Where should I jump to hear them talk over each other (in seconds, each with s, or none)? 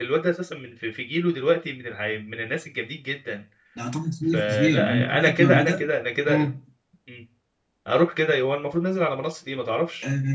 4.3 s